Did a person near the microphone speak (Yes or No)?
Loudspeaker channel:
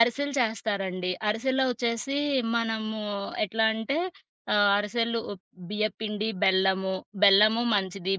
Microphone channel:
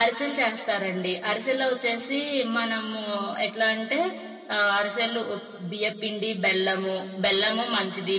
No